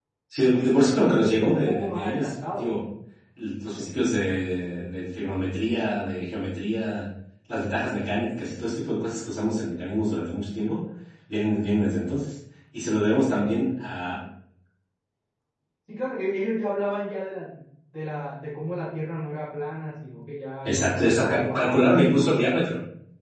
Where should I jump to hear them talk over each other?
1.2 s

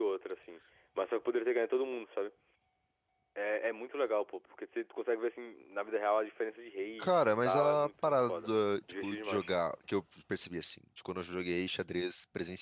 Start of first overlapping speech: 7.0 s

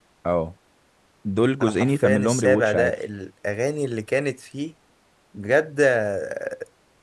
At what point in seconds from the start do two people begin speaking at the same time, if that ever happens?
1.6 s

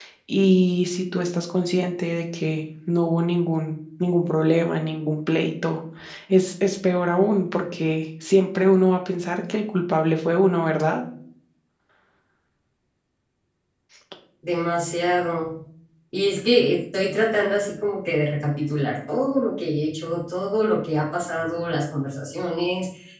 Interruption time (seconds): none

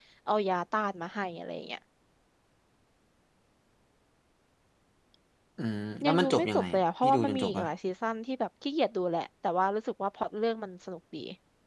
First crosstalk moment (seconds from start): 6.0 s

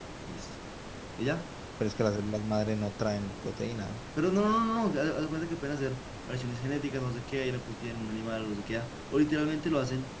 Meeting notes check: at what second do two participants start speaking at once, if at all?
none

